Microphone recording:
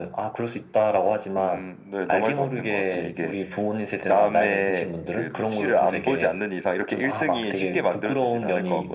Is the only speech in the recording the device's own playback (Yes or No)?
Yes